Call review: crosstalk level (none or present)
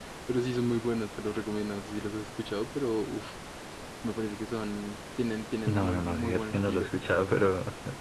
present